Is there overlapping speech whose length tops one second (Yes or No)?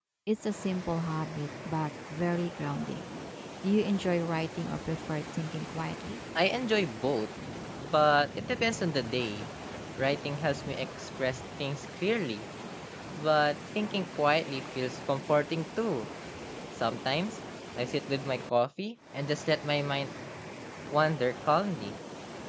No